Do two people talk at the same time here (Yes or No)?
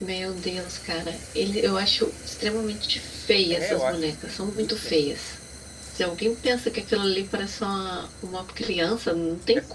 Yes